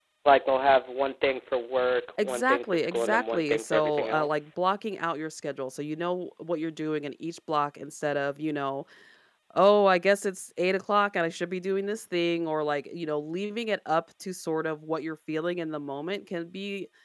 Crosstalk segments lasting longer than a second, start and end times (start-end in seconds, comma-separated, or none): 2.2-4.5